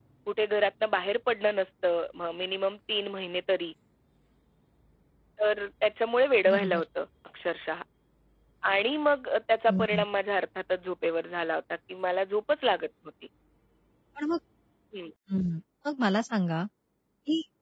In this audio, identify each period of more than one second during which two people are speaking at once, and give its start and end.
none

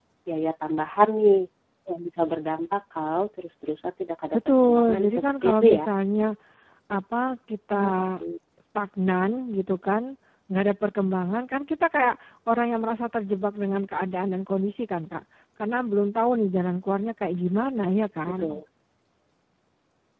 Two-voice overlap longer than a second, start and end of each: 4.3-5.8

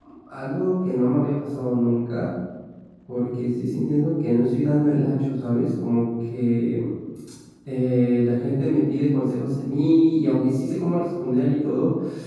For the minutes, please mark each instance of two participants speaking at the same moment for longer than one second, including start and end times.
none

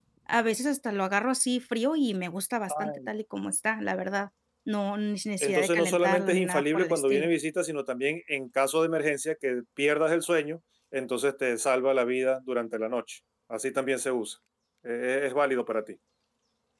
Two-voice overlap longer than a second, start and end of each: 5.4-7.3

